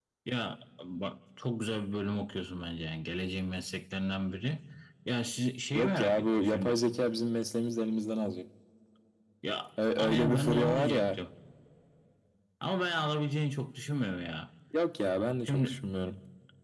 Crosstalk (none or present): present